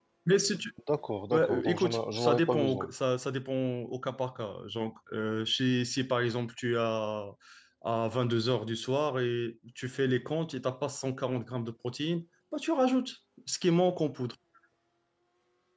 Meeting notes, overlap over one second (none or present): present